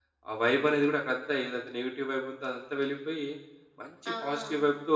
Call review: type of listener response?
listening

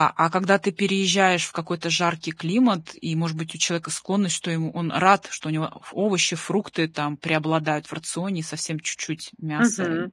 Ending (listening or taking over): taking over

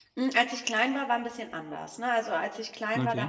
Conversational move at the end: listening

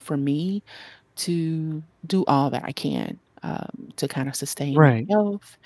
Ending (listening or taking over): listening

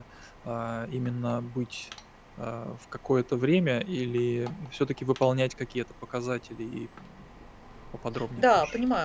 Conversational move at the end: taking over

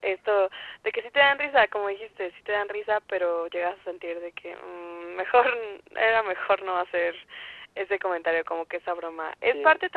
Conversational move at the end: listening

